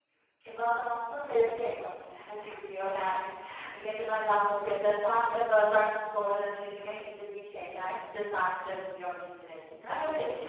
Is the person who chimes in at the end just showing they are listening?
No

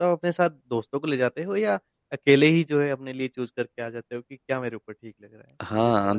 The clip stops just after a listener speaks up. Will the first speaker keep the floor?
No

